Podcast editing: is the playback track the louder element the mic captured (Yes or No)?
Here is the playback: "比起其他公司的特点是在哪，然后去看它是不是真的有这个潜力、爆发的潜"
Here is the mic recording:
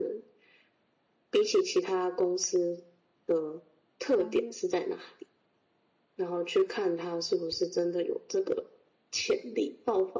Yes